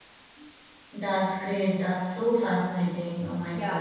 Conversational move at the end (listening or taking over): taking over